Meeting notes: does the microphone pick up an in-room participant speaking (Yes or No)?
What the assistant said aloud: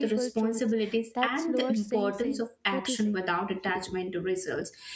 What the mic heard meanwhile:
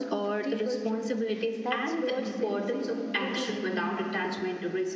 No